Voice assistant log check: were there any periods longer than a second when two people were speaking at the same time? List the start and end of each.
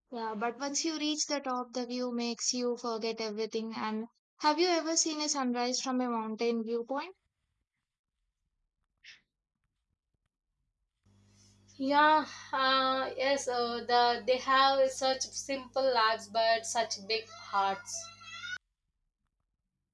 none

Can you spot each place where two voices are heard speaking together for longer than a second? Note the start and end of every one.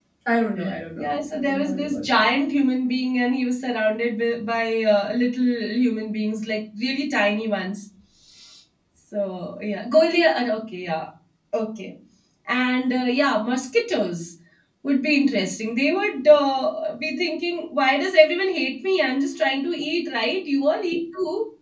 1.0-2.3

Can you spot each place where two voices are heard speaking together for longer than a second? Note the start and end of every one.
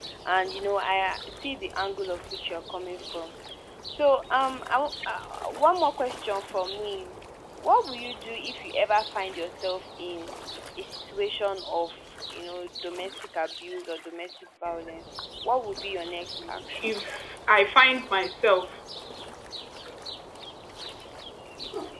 none

